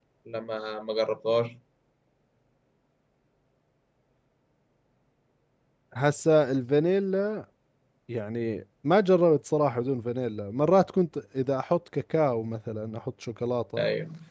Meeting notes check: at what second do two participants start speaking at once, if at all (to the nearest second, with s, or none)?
none